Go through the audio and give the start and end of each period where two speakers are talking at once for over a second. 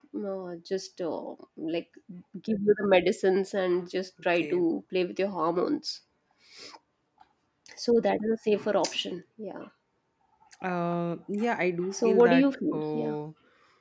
11.9-13.2

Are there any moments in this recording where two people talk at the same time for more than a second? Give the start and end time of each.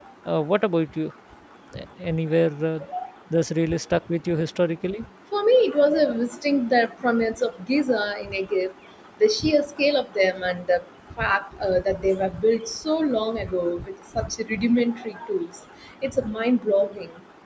none

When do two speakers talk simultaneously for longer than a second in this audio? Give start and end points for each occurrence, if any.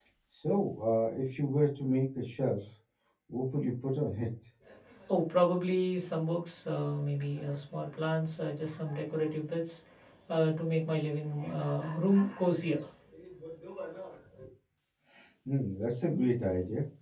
none

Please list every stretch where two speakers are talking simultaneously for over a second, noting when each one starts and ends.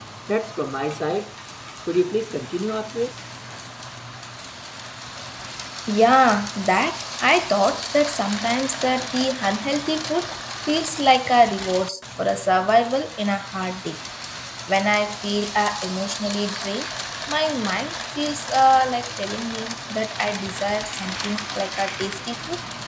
none

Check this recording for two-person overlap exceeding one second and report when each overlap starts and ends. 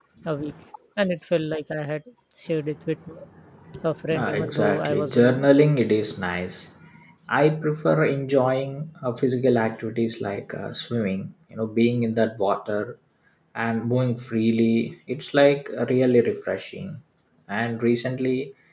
4.1-5.5

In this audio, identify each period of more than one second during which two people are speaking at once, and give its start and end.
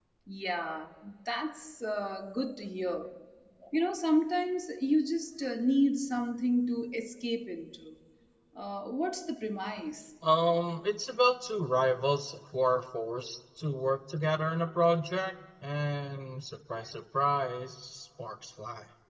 none

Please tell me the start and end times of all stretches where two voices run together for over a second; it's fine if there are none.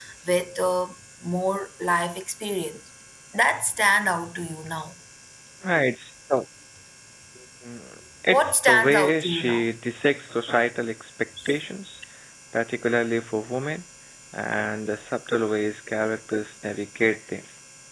8.3-9.7

